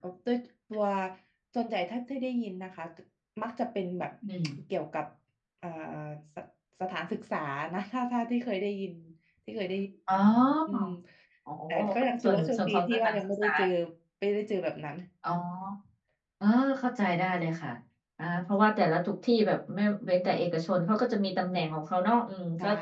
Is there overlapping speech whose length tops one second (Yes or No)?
Yes